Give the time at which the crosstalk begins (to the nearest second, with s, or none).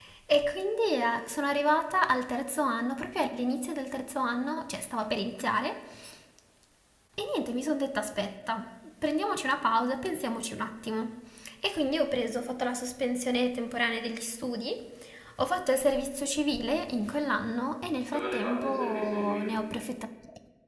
18 s